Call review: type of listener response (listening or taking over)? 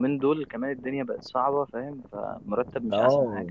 taking over